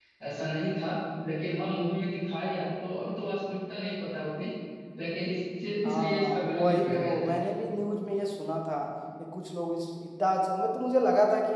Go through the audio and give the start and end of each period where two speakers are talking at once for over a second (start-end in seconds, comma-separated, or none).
5.8-7.4